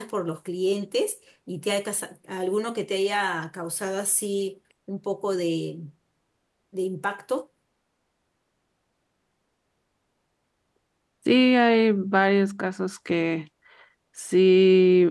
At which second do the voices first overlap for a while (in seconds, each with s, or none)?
none